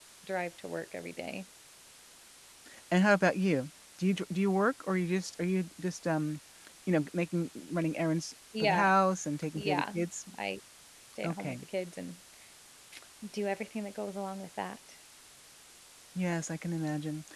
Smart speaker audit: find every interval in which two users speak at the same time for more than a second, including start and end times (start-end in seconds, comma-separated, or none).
none